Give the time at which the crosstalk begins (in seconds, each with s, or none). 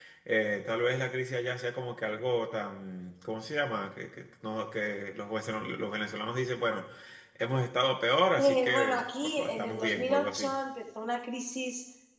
8.4 s